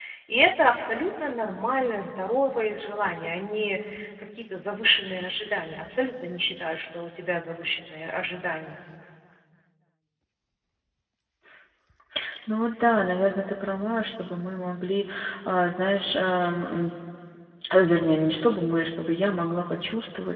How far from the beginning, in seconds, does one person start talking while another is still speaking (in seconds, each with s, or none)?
none